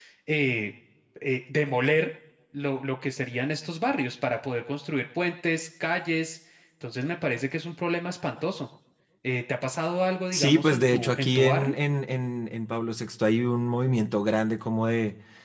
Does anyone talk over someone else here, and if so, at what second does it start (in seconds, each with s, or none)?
10.3 s